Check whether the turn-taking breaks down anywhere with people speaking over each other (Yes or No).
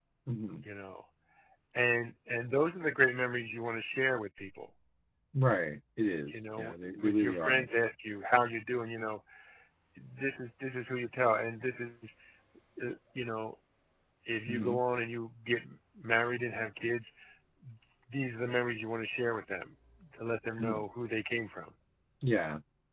Yes